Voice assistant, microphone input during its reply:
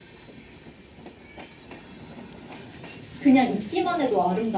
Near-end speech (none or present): present